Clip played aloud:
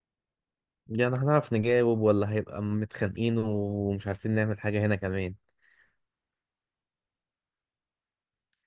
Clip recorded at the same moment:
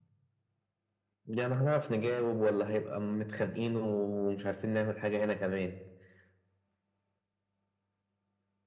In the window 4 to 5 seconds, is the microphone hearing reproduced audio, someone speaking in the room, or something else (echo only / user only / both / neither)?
echo only